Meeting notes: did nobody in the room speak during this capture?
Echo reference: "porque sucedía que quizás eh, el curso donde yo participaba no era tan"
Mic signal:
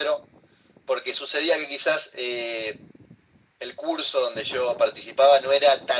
Yes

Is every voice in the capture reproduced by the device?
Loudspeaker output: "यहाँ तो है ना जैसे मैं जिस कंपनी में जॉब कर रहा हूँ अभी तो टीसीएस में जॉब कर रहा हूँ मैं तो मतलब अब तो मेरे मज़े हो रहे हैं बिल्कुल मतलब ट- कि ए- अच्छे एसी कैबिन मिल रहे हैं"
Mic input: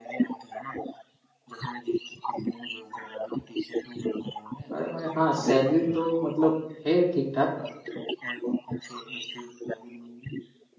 No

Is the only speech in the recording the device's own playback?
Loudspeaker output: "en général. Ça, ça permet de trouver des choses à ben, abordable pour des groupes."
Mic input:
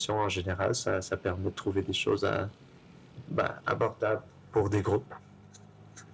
Yes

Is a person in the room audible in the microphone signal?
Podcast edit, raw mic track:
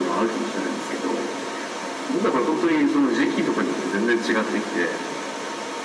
No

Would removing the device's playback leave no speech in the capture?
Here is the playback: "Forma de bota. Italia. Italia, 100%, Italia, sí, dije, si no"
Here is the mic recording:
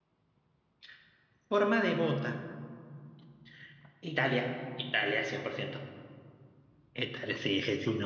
Yes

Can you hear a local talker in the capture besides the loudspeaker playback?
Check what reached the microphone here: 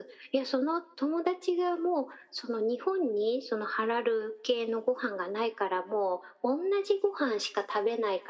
No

